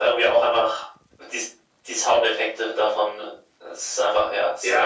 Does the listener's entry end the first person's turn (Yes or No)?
Yes